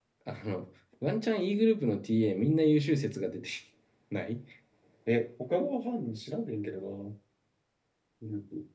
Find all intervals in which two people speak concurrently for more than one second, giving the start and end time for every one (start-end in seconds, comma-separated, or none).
none